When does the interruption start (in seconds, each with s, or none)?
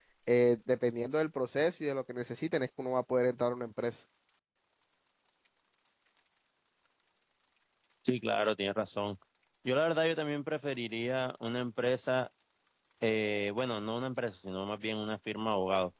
none